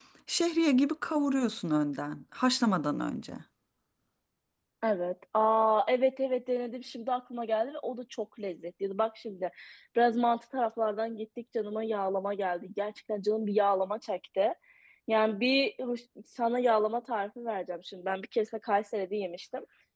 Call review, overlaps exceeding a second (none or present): none